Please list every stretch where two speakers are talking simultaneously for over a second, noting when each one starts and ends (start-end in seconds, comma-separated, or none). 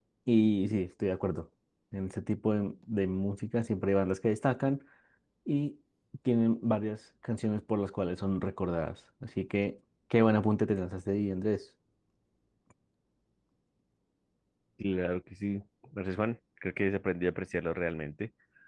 none